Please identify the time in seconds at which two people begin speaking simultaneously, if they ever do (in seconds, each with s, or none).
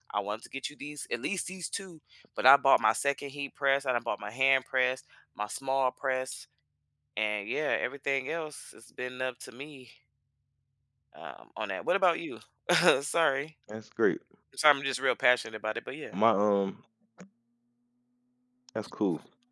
none